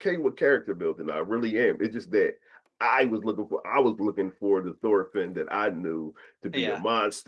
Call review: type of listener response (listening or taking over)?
listening